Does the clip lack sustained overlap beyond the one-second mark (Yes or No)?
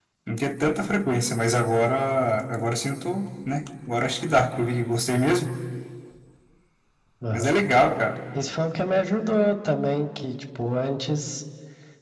Yes